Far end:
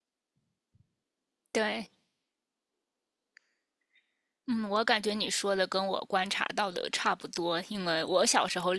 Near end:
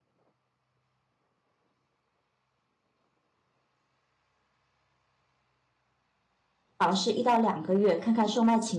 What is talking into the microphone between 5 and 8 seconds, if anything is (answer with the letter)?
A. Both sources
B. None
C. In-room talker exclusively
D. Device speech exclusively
C